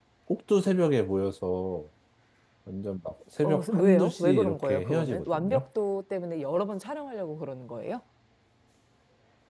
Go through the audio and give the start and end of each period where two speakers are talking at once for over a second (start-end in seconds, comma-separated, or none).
3.4-5.6